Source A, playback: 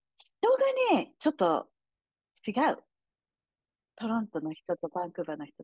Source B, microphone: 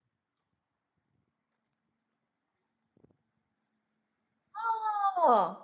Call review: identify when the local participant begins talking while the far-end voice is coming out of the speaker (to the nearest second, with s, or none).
5 s